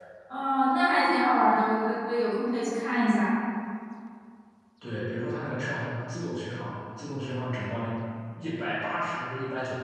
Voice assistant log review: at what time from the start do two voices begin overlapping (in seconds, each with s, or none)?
none